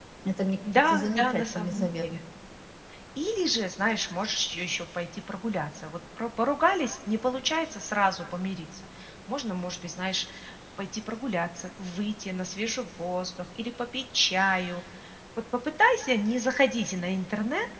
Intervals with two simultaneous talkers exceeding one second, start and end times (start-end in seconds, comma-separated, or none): 0.7-2.0